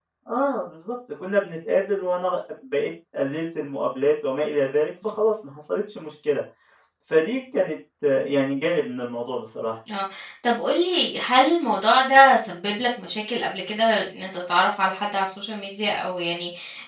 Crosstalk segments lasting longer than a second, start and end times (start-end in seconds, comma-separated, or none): none